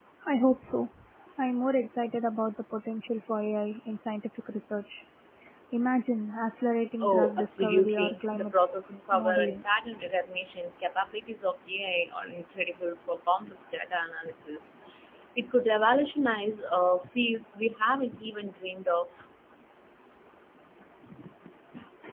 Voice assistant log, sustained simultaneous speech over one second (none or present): present